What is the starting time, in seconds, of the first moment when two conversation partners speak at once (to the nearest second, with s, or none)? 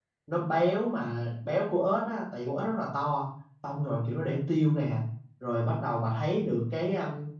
none